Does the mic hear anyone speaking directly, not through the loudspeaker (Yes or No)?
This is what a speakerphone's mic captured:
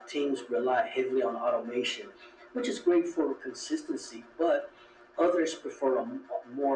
No